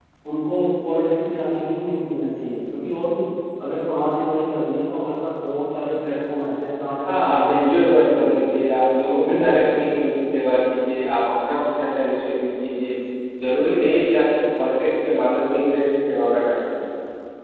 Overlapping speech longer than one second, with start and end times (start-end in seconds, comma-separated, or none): 7.1-8.3